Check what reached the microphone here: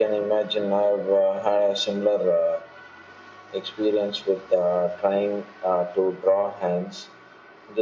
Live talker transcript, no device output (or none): none